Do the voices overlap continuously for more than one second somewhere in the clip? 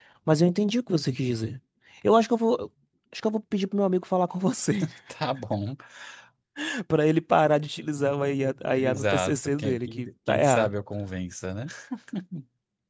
Yes, from 8.7 s

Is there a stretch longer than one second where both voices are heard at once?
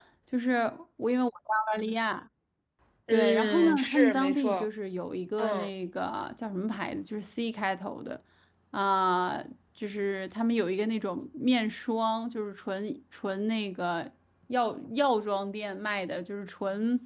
Yes, from 3.1 s

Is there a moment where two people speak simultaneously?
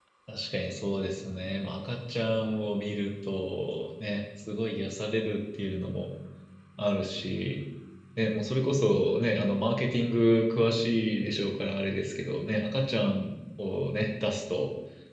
No

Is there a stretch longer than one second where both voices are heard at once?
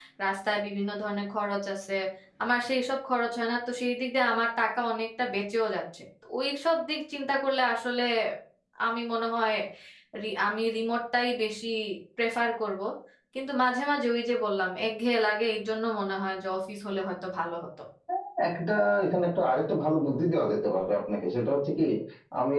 No

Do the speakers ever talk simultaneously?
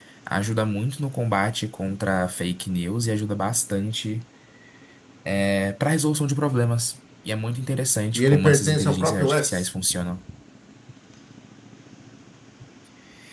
Yes, from 8.2 s

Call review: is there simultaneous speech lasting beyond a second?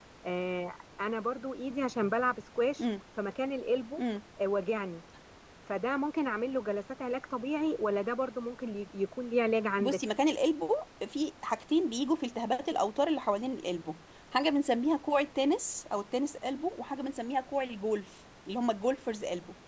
No

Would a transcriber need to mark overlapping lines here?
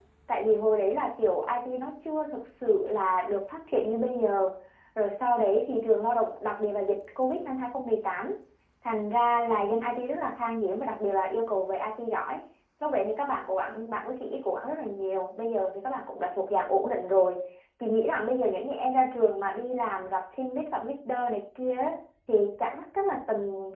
No

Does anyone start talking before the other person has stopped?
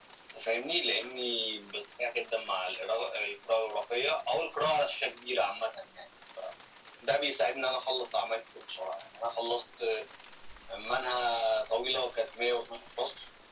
No

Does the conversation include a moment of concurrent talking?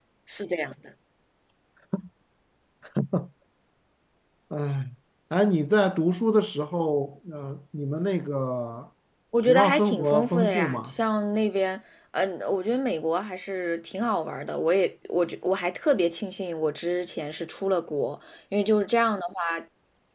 Yes, from 9.5 s

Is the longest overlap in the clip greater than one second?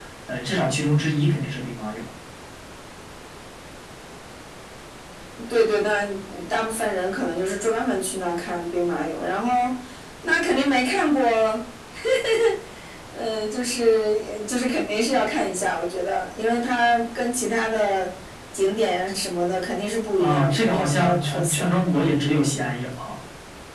Yes, from 20.2 s

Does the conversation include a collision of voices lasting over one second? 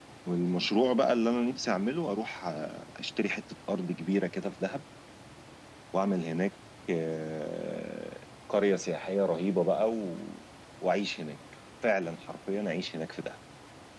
No

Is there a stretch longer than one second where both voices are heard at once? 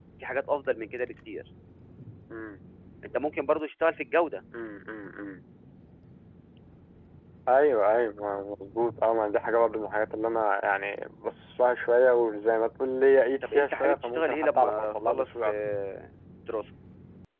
Yes, from 13.4 s

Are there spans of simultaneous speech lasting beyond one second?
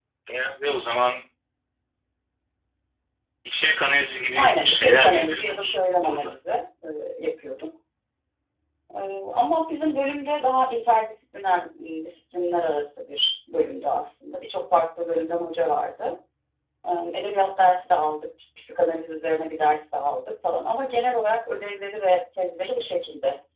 Yes, from 4.4 s

